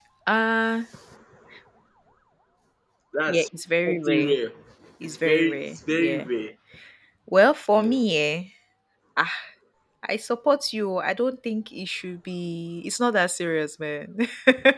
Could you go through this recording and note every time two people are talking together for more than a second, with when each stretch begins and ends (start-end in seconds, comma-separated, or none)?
5.0-6.3